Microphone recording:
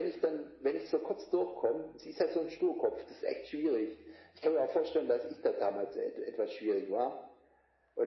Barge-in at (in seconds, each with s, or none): none